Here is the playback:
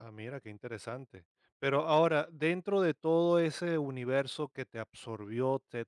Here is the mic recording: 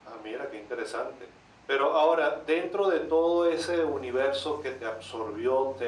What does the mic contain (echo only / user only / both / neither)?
echo only